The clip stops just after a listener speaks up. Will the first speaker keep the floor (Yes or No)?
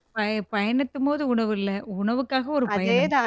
No